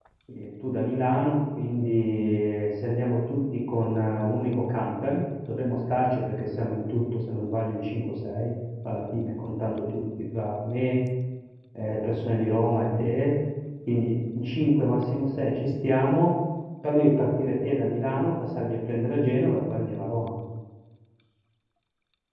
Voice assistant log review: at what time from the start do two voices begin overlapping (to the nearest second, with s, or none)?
none